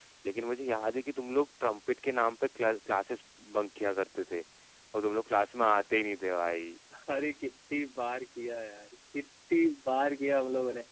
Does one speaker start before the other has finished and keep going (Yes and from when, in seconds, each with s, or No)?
No